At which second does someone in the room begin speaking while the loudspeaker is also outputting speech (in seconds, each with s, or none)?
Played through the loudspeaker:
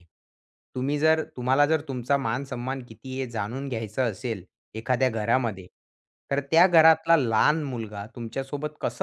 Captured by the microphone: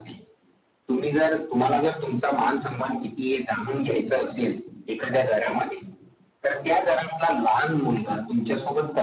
none